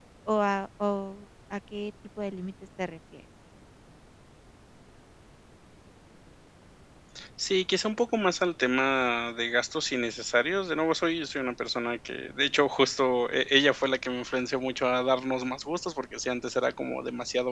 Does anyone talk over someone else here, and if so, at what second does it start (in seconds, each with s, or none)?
none